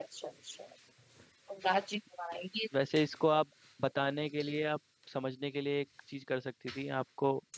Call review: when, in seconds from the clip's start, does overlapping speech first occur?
none

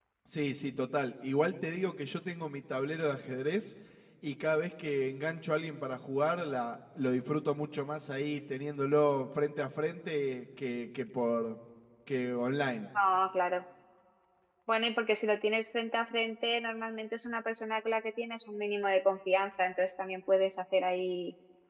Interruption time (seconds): none

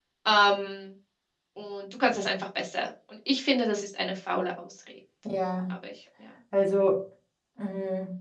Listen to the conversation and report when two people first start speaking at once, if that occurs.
none

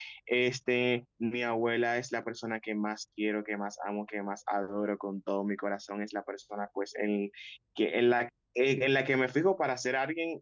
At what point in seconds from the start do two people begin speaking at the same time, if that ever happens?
none

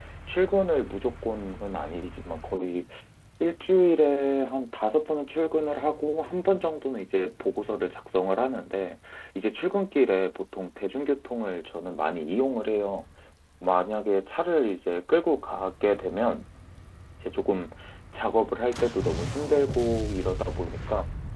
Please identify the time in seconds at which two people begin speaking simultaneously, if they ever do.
none

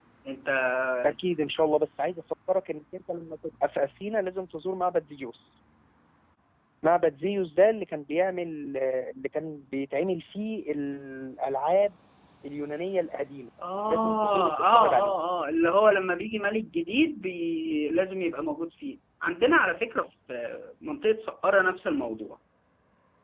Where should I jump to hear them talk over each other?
13.9 s

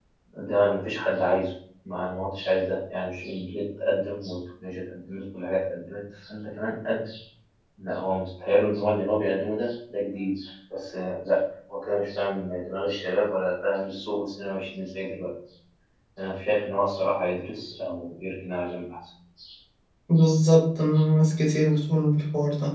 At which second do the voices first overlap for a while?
none

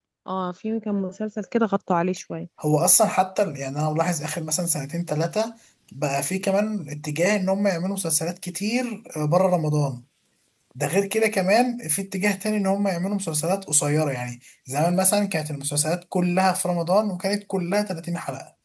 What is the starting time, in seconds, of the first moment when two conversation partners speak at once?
none

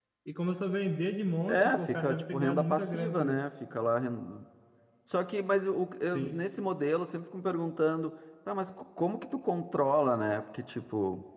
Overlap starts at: 1.5 s

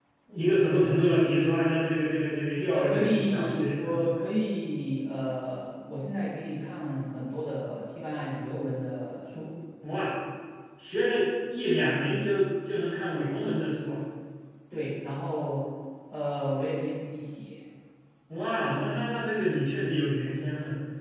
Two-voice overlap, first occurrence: 2.6 s

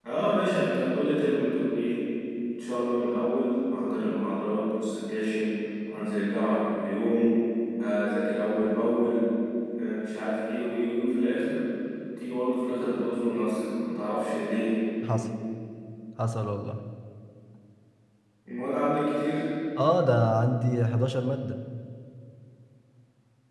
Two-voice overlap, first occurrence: none

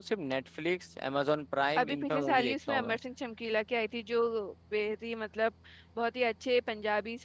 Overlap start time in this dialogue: 1.8 s

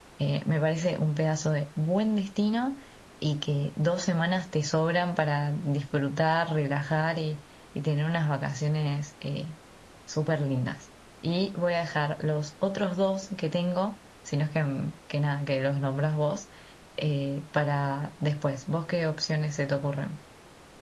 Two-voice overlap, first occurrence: none

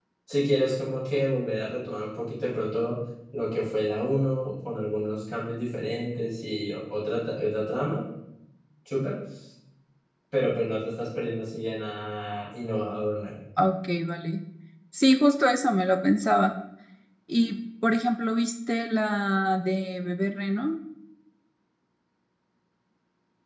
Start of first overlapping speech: none

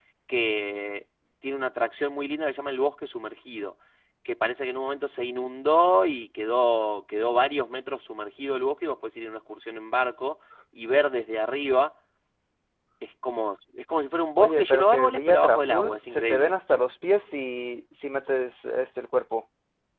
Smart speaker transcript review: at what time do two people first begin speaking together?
14.4 s

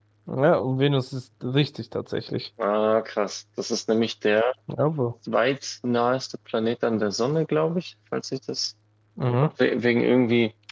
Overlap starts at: none

